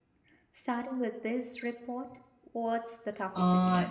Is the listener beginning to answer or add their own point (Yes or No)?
Yes